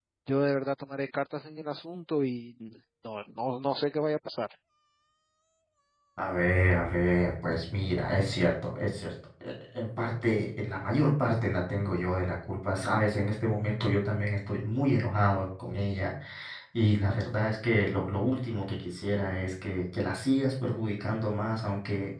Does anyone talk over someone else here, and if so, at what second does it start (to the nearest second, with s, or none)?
none